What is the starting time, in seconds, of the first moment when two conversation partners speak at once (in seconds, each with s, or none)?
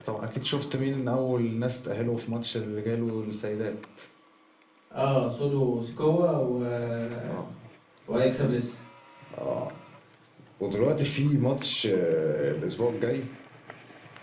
none